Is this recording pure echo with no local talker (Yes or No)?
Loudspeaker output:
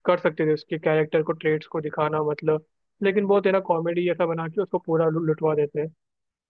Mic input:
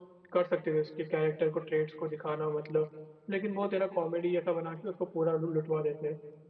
Yes